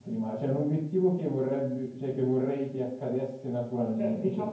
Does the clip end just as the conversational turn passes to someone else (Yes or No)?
Yes